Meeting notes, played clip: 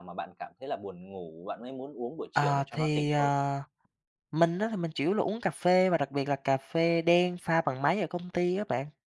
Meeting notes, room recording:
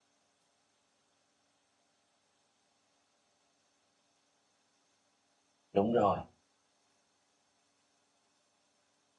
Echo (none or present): none